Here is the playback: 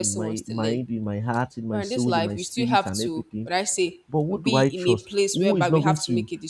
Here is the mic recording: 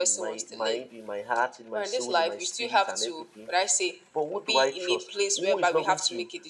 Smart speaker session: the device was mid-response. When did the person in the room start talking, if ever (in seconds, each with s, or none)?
none